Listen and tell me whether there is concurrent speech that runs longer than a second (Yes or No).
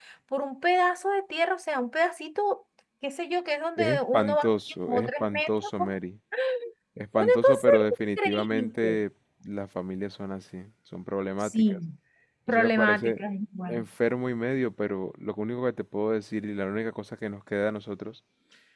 Yes